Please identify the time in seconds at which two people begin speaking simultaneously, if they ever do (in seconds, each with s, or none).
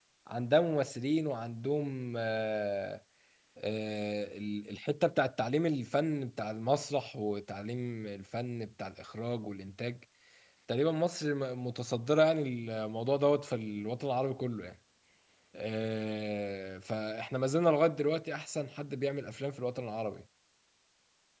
none